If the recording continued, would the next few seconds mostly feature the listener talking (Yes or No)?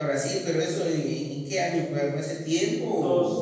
Yes